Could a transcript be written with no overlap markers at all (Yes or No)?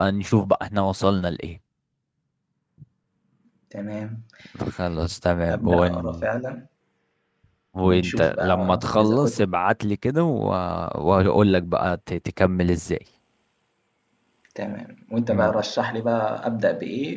No